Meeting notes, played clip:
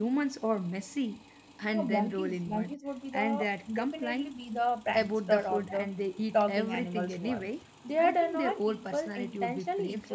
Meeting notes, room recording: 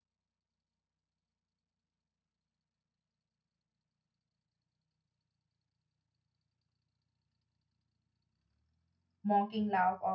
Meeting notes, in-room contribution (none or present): present